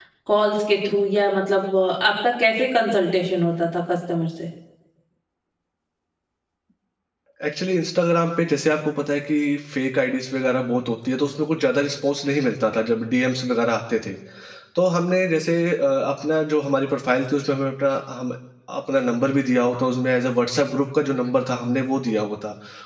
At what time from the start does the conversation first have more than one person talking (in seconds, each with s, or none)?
none